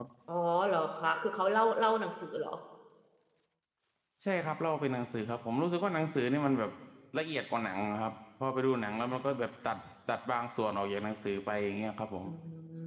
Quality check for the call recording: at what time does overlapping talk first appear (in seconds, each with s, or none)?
none